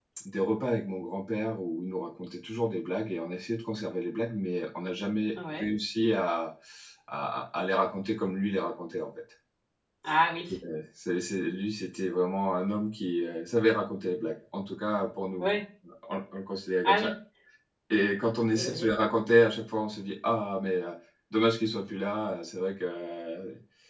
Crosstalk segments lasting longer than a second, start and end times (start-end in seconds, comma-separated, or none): none